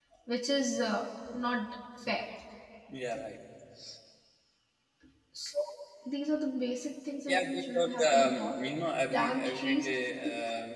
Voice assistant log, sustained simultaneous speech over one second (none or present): present